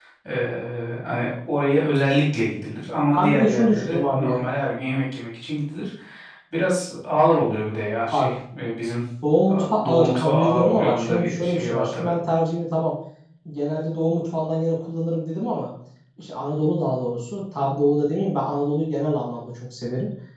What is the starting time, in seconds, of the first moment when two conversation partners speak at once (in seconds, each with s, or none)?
3.1 s